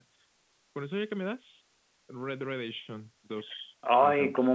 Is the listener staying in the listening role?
No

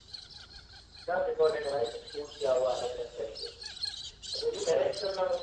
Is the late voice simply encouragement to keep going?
Yes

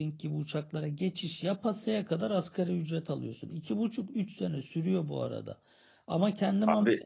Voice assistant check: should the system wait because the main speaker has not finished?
Yes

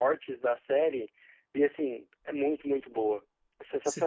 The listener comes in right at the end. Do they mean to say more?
Yes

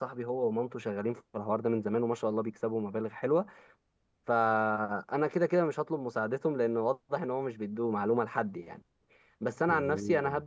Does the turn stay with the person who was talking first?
Yes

